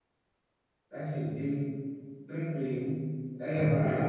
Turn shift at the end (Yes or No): Yes